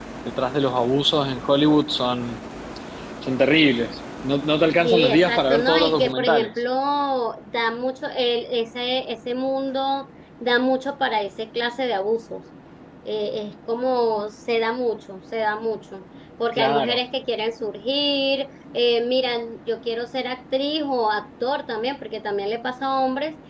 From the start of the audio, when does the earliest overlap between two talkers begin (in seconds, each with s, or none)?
4.8 s